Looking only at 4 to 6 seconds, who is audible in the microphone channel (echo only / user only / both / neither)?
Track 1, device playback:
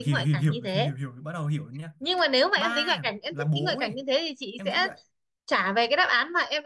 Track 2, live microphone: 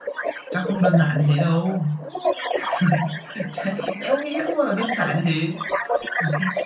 both